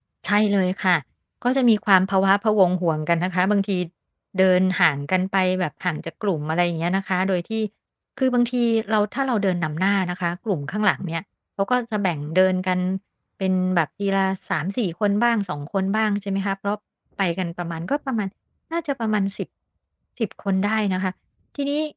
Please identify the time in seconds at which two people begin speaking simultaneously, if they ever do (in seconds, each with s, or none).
none